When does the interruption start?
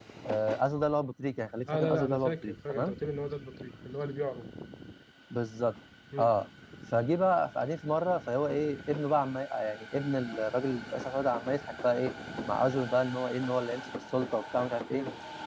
2 s

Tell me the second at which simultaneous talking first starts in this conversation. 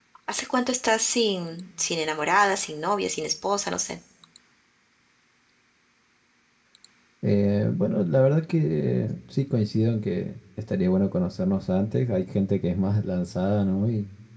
none

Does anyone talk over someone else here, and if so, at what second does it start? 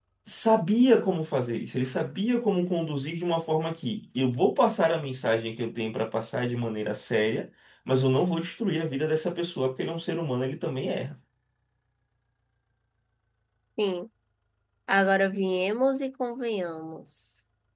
none

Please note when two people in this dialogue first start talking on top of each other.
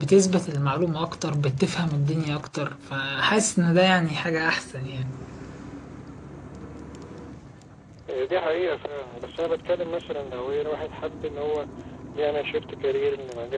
none

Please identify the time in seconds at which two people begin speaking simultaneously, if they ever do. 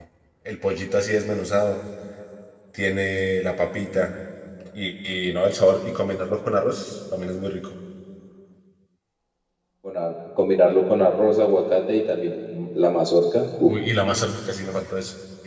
none

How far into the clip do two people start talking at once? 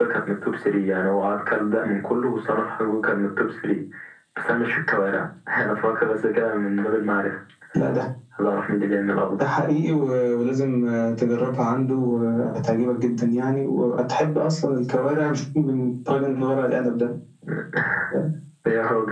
none

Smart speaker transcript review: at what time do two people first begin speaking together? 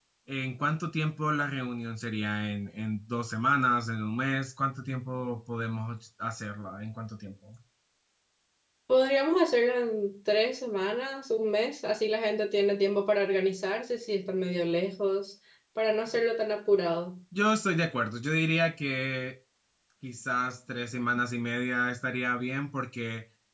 none

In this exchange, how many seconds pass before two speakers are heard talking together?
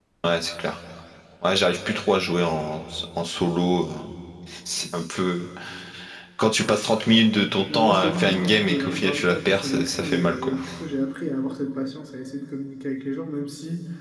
8 s

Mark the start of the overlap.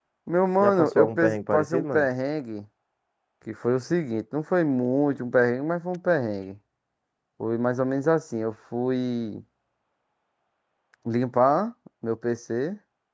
1 s

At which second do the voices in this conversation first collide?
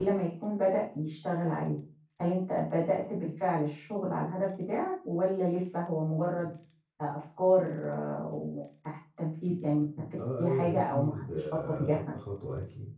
10 s

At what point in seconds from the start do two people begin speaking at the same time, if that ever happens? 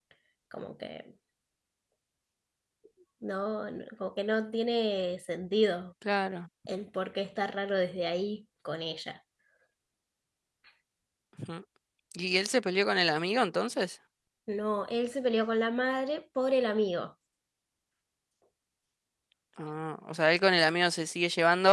none

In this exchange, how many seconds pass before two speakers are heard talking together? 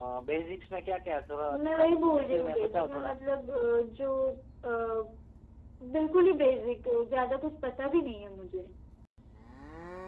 2 s

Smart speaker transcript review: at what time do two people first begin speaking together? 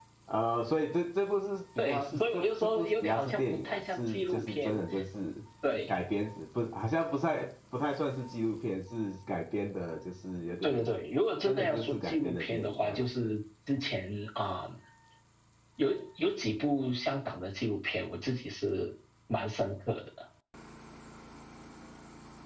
2 s

